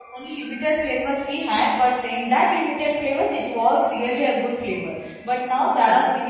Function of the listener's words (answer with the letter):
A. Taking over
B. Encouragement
B